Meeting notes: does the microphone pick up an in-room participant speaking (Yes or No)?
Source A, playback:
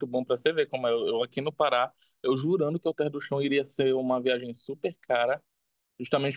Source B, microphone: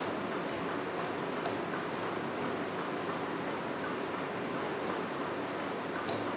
No